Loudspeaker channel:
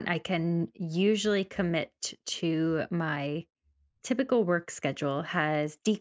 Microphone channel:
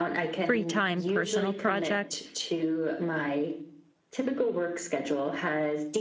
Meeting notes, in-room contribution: present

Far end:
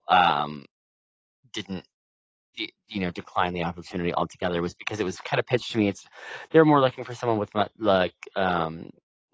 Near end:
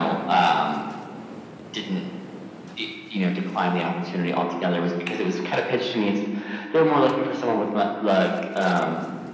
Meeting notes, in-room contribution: none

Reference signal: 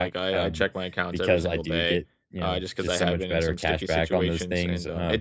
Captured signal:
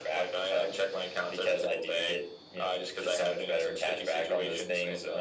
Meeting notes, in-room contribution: none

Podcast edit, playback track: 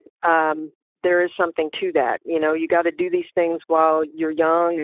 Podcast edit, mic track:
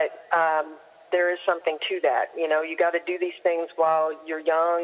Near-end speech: none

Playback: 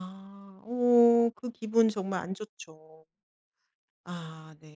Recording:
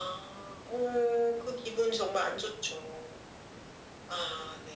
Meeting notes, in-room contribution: none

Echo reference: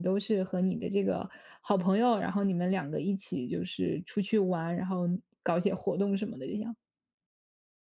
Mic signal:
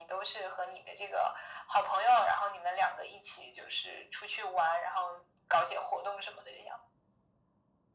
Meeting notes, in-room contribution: none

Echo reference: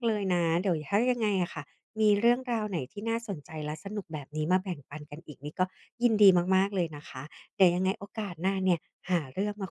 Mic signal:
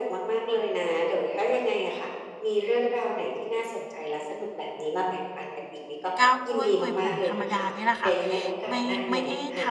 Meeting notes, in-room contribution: present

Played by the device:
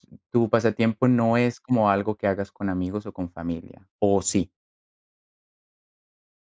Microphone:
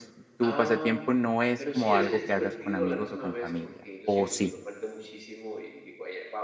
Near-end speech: present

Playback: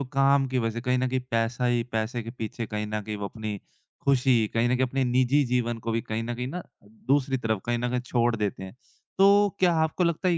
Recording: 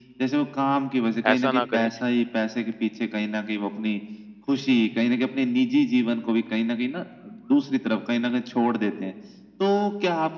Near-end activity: present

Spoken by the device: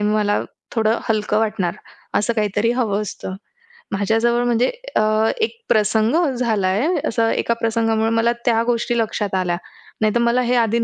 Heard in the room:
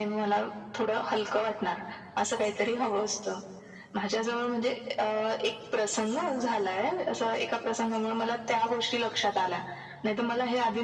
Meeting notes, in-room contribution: none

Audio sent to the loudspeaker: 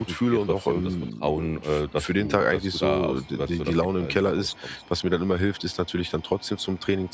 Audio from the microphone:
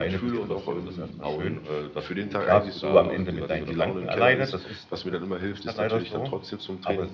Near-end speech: present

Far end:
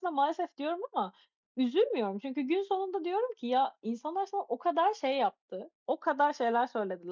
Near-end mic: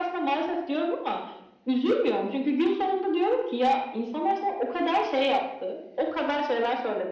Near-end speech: none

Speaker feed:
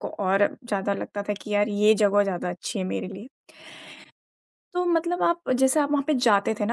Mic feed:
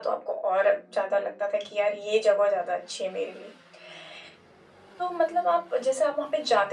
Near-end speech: none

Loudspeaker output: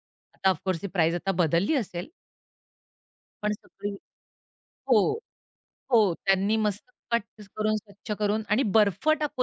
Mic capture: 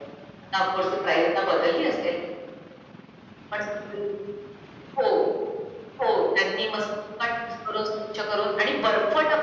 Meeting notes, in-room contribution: none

